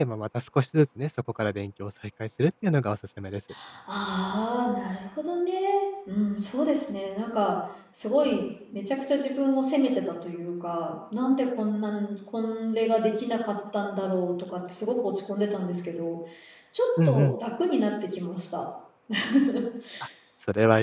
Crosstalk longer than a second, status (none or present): none